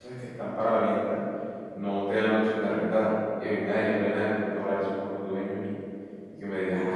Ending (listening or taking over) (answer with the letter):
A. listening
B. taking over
B